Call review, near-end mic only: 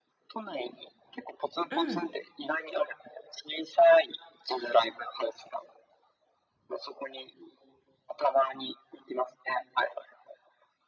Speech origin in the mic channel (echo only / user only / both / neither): both